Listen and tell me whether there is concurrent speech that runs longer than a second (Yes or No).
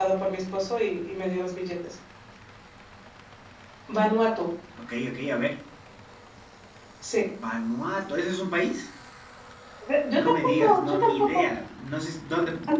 Yes